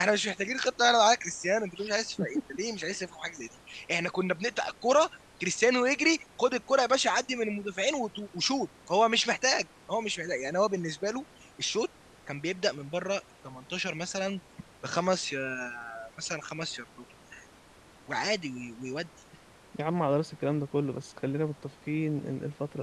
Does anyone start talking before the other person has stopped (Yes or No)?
No